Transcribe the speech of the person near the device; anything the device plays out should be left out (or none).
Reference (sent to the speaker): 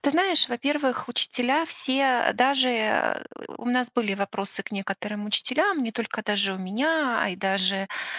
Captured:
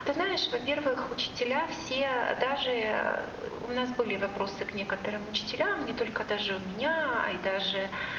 none